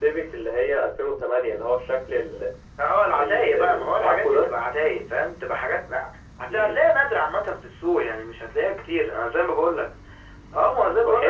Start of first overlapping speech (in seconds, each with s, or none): 3.1 s